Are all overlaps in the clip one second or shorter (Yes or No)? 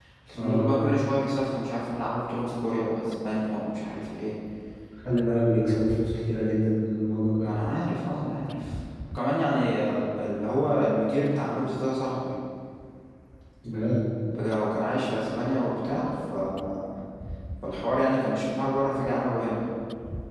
Yes